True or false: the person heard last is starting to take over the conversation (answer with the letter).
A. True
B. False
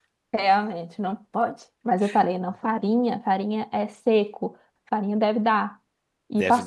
B